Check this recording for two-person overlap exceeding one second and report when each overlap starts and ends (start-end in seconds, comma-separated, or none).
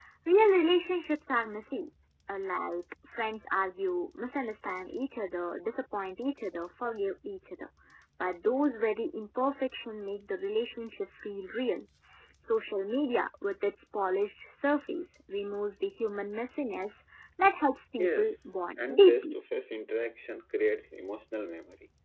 18.0-19.3